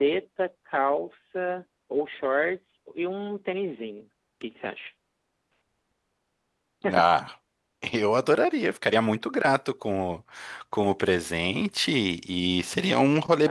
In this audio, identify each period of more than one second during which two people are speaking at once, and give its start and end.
none

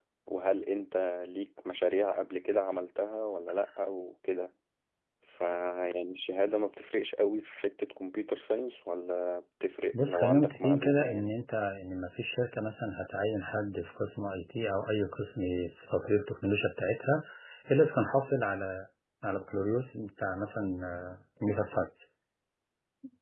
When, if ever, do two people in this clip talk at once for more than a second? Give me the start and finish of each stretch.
9.9-11.3

